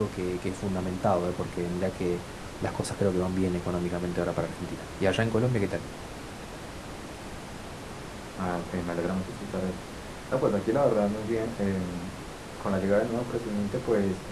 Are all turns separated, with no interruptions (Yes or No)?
Yes